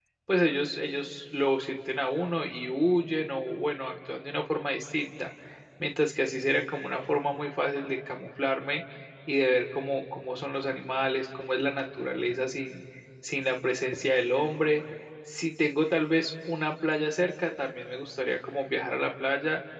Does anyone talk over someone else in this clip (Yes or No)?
No